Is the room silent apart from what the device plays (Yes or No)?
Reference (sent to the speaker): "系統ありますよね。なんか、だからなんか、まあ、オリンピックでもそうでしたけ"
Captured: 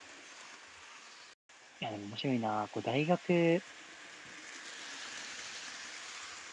No